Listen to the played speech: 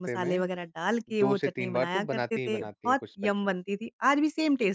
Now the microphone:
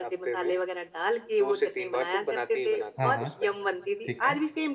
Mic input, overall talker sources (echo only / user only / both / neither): both